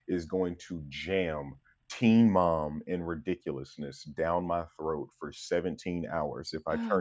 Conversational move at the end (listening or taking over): taking over